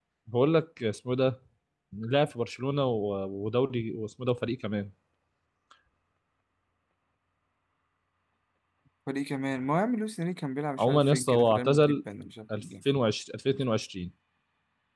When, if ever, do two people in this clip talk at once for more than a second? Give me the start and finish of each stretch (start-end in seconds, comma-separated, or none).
10.8-12.0